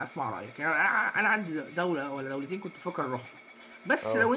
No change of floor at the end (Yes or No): Yes